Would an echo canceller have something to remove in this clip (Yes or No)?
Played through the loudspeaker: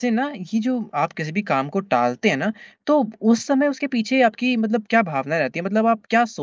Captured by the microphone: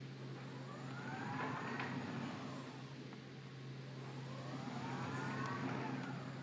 No